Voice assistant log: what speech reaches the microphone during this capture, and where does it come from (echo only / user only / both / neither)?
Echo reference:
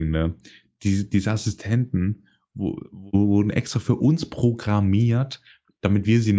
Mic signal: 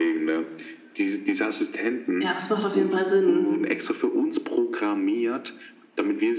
both